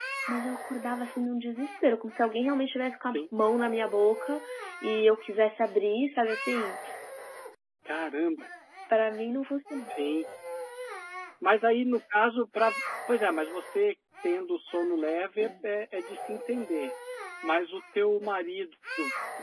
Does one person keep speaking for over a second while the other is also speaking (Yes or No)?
No